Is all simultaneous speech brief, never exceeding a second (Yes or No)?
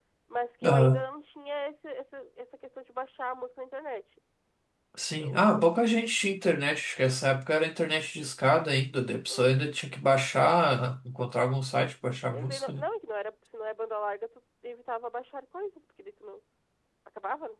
Yes